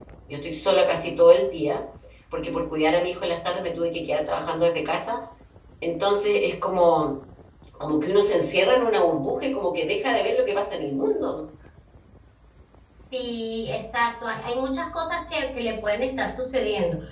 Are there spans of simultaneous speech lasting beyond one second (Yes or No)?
No